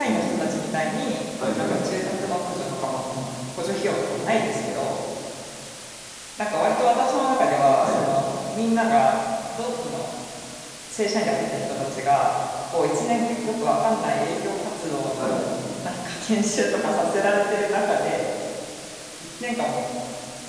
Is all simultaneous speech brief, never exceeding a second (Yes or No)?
Yes